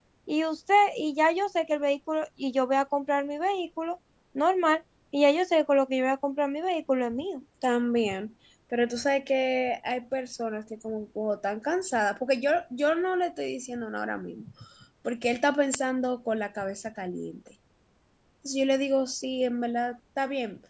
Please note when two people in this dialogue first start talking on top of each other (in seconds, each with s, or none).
none